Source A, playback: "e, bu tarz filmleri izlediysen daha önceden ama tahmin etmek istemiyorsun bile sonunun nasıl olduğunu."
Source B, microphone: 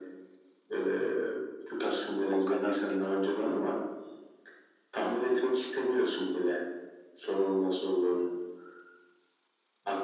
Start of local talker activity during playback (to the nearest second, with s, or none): 2 s